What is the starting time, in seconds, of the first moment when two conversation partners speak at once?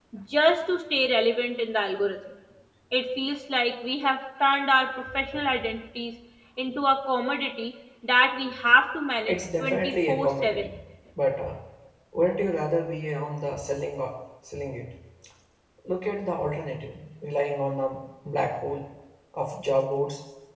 9.3 s

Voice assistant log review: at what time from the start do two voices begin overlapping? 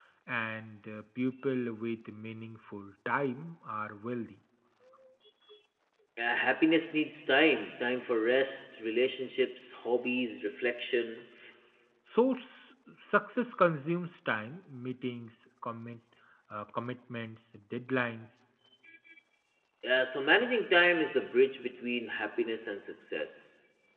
none

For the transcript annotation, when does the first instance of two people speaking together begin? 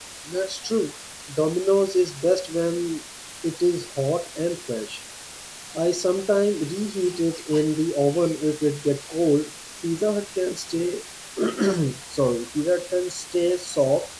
none

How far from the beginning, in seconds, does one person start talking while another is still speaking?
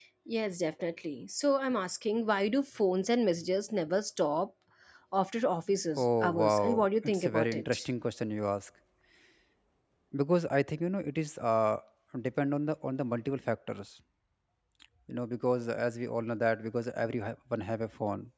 6.0 s

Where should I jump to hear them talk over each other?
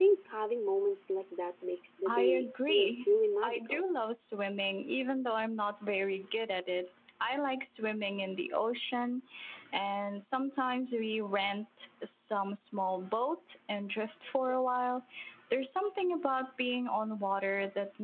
2.0 s

